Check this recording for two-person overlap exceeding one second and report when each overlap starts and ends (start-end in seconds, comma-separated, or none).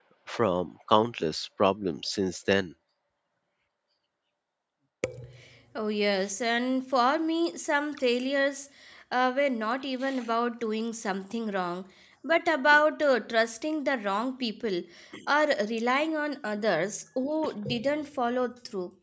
none